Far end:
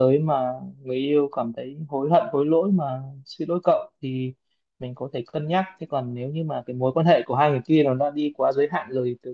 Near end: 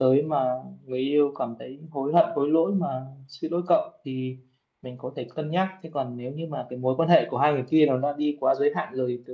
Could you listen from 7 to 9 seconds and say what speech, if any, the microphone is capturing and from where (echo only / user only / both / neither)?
echo only